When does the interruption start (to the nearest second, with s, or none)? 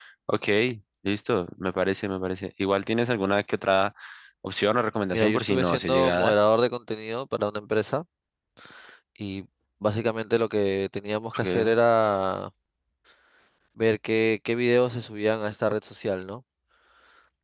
5 s